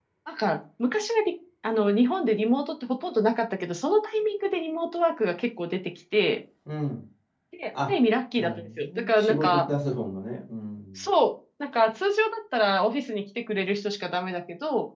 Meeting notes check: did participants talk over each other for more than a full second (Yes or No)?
Yes